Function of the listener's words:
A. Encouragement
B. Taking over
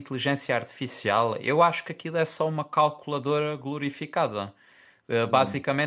A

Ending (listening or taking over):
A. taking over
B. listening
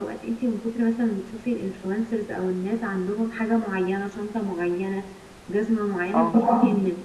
B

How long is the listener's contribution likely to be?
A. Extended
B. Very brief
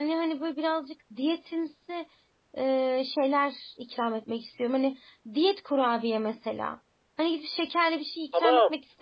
A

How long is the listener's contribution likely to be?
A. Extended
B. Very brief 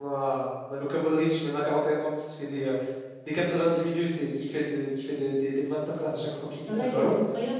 A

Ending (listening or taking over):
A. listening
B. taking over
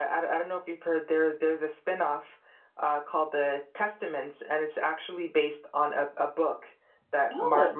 A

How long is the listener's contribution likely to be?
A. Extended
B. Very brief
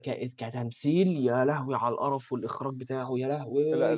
A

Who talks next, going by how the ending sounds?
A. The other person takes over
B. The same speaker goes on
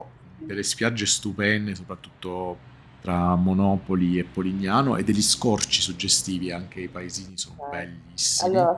A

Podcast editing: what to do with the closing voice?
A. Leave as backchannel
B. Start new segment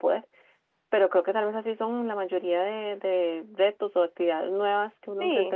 B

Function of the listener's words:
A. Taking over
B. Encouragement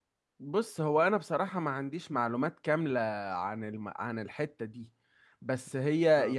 B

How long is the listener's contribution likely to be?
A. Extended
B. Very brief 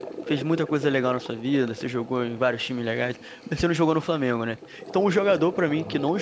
B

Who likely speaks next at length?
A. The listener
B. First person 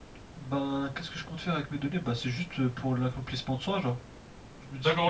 A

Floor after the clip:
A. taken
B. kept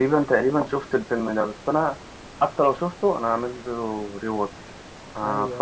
A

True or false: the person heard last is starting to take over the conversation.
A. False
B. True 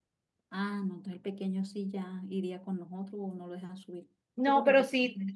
B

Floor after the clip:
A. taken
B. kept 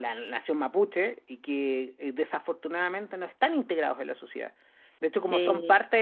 B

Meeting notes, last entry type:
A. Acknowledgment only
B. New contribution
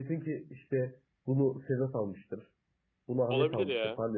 A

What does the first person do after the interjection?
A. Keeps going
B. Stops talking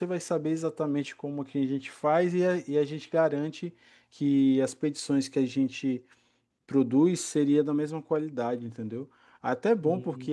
A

